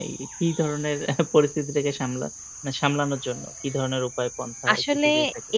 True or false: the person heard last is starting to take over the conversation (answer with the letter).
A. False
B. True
B